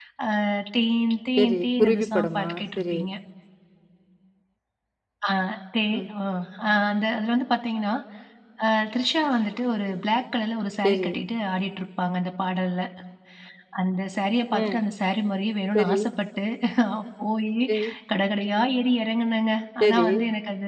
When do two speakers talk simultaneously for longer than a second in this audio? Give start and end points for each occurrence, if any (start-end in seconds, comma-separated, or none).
1.4-3.0